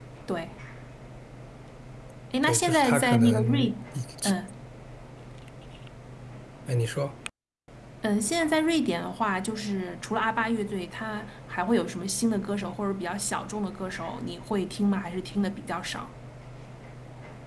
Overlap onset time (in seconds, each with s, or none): 2.4 s